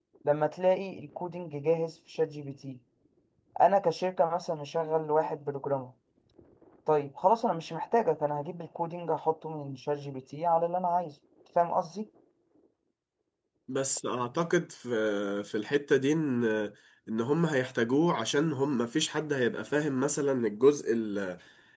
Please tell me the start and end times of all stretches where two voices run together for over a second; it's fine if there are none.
none

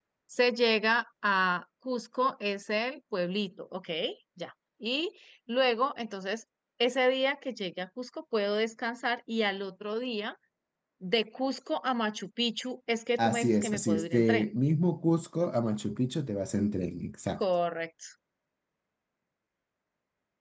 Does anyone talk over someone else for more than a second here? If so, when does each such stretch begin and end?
13.2-14.5

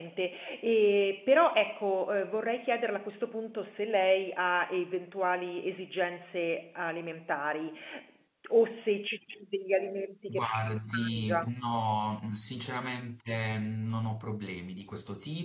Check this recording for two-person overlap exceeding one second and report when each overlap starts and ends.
10.3-11.5

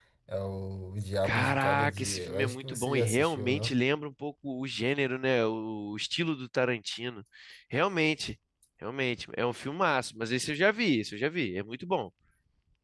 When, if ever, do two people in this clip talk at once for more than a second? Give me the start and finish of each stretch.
1.2-3.8

